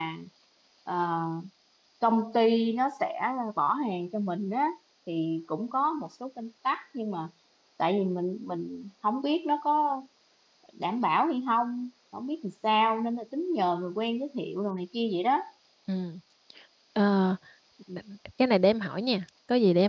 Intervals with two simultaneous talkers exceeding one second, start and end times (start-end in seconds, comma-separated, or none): none